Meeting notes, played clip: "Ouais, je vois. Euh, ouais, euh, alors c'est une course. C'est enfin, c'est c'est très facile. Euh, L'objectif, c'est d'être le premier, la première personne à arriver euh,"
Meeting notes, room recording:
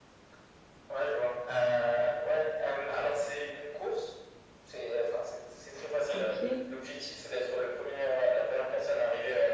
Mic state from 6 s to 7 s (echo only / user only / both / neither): both